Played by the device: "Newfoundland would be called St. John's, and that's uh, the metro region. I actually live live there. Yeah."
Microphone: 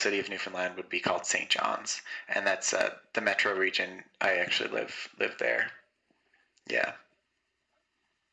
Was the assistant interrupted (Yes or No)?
No